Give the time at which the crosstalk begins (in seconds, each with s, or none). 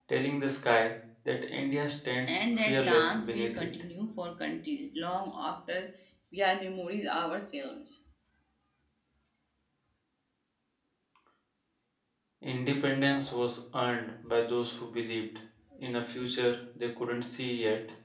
2.3 s